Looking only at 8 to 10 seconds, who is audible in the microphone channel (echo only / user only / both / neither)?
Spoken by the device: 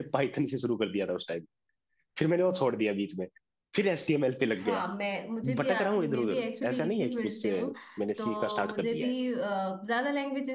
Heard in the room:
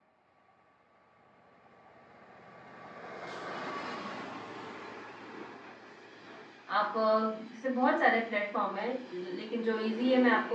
user only